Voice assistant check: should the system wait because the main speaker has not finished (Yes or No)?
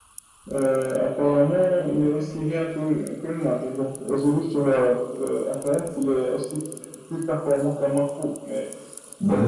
No